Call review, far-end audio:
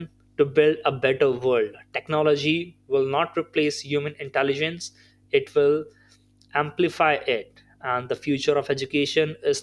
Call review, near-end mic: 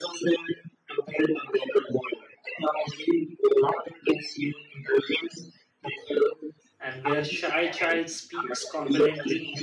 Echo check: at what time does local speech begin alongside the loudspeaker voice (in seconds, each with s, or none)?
6.8 s